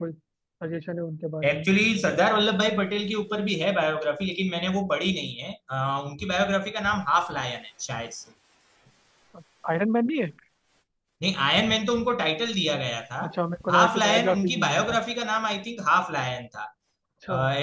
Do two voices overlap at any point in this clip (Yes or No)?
Yes